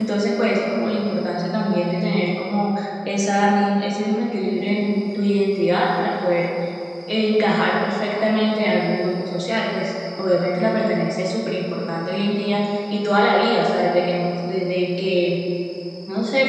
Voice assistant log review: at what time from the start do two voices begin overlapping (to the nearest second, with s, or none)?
none